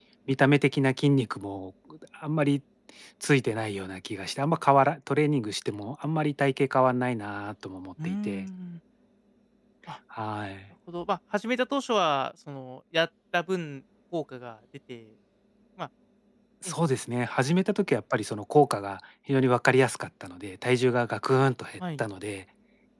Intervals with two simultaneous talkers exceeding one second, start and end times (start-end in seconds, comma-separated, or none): none